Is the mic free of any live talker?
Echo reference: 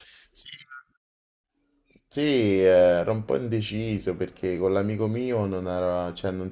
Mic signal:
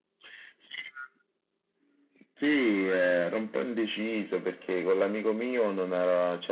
Yes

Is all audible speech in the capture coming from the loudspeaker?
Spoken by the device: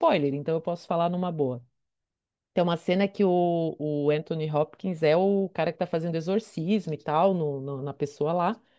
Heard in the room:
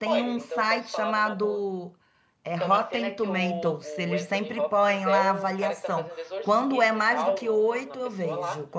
No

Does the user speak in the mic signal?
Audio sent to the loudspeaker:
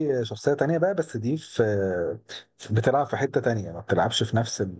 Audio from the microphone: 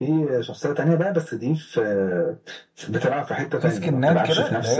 Yes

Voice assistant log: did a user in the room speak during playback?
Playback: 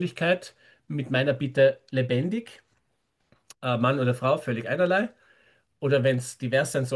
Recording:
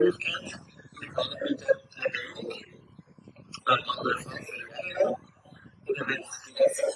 No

